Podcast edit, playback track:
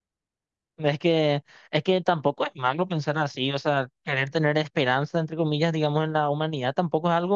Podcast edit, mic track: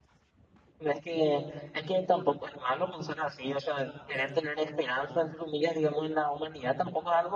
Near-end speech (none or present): present